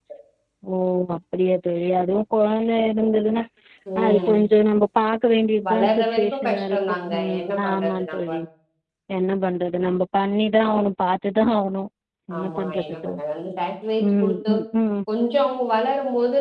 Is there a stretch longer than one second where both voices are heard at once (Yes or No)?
Yes